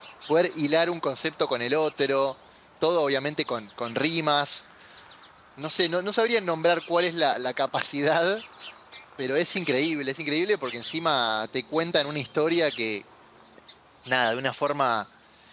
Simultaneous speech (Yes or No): No